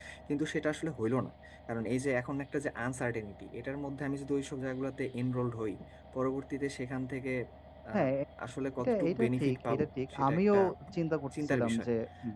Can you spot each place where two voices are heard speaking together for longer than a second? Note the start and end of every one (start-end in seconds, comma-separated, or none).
8.8-10.6